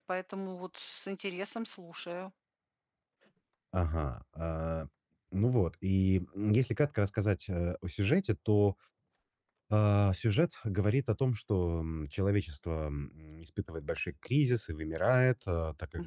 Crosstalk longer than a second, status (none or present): none